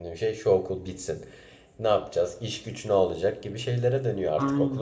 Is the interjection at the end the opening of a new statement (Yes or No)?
Yes